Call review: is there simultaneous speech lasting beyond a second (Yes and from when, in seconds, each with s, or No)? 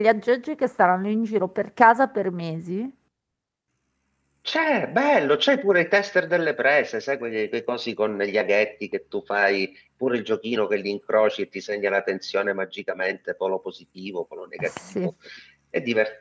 No